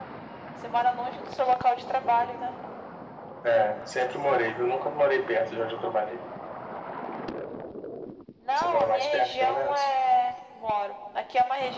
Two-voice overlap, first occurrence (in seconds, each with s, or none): 8.6 s